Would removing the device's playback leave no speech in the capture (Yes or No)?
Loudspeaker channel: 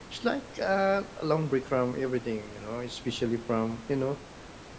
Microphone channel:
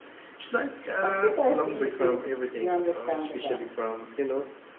No